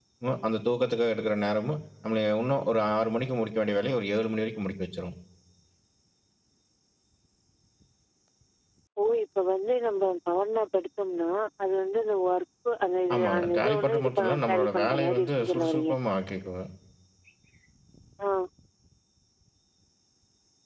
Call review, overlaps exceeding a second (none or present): present